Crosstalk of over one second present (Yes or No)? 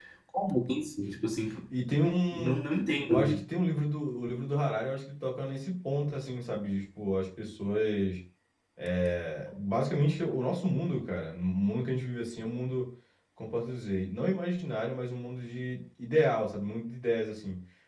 No